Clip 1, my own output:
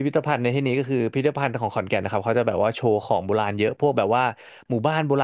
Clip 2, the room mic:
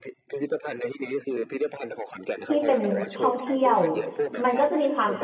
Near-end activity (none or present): present